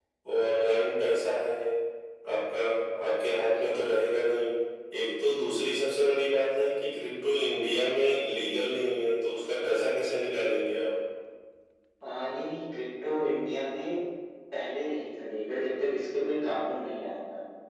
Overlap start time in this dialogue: none

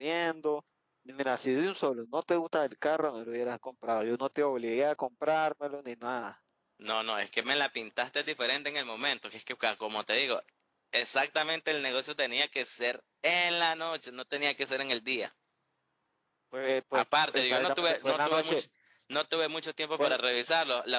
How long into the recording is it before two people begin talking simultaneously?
17 s

